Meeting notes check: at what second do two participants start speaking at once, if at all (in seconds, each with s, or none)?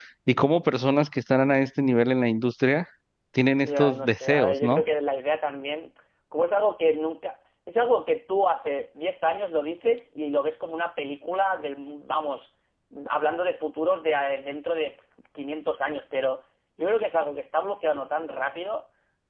3.6 s